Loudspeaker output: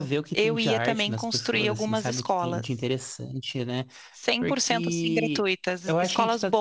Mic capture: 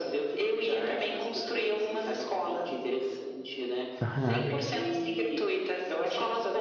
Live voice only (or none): aham,